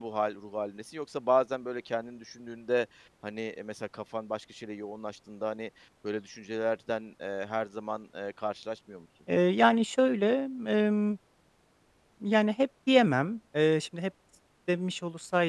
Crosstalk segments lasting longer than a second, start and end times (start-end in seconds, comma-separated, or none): none